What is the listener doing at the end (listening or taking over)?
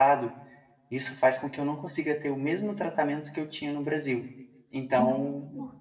taking over